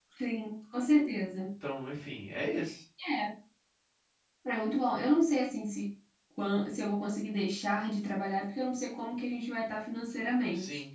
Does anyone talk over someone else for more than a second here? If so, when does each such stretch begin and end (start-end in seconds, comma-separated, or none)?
none